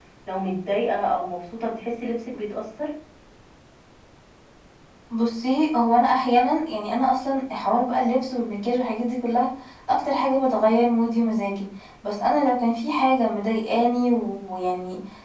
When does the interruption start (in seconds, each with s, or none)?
none